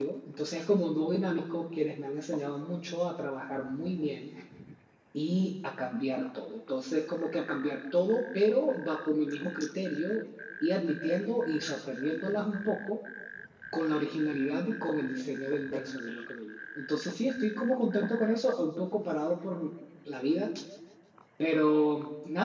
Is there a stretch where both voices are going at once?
No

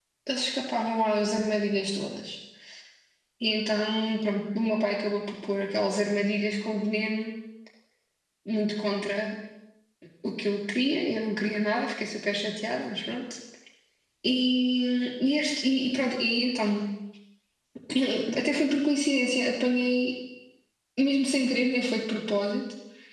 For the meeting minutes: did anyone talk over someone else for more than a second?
No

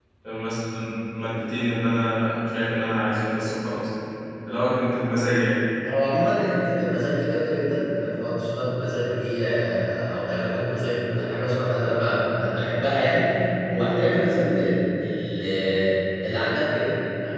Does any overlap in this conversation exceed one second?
No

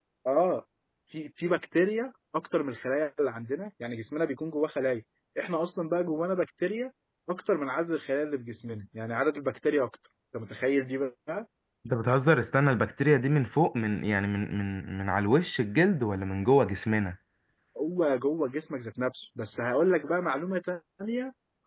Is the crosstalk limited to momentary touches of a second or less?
Yes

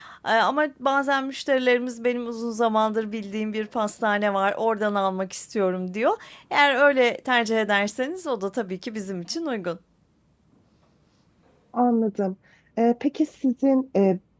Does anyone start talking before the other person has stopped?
No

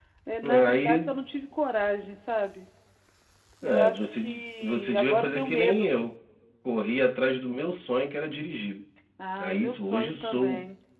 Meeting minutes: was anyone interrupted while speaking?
Yes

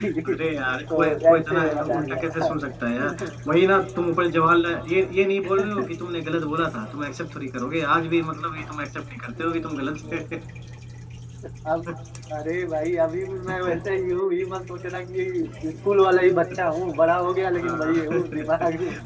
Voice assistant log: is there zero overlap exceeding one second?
No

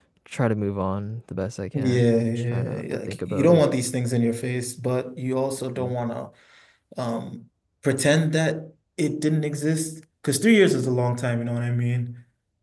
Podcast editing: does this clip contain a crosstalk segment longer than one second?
Yes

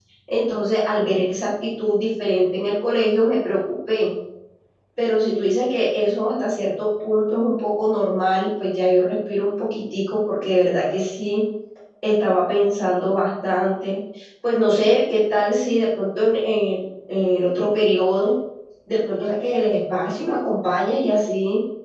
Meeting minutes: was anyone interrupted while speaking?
No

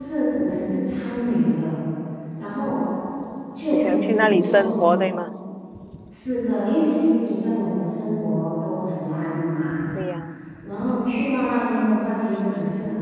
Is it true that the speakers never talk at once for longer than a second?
No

